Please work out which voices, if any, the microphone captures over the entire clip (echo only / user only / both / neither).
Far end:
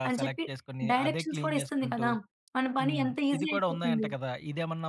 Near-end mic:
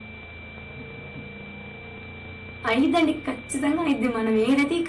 user only